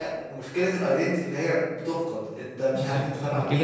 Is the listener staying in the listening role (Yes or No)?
No